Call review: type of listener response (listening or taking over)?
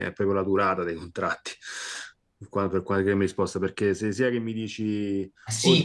taking over